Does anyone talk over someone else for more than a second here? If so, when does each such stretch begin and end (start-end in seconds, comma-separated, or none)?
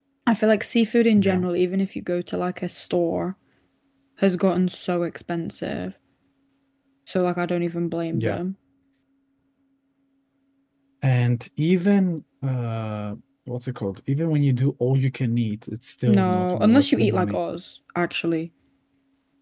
16.1-17.4